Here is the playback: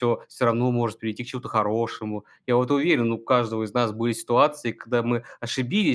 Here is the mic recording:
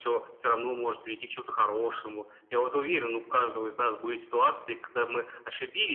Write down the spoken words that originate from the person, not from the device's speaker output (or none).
none